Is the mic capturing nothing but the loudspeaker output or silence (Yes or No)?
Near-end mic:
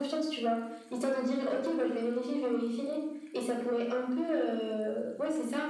Yes